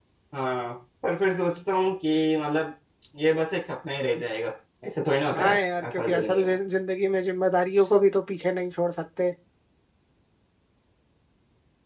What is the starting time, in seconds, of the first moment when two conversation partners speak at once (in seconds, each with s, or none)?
5.3 s